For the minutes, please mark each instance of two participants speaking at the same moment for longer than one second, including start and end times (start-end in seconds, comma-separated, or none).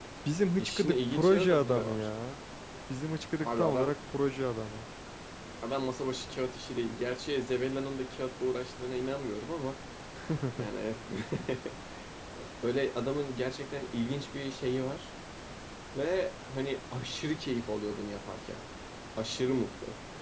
0.6-2.1